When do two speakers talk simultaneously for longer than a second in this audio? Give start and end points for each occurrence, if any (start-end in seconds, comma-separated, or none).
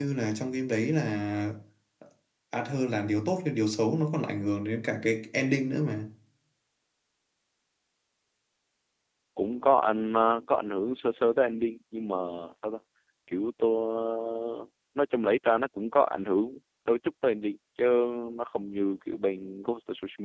none